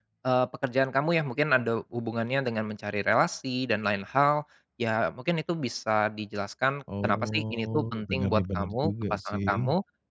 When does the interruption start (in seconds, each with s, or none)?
6.9 s